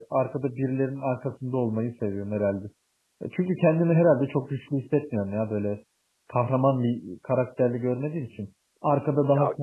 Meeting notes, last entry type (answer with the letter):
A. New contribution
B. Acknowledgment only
A